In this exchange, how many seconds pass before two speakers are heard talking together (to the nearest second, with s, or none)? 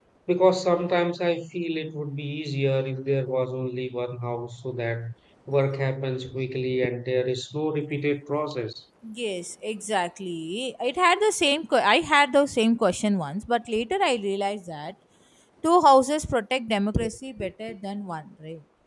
none